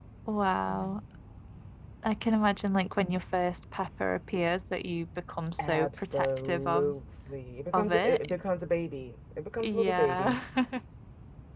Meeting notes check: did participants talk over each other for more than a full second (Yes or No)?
Yes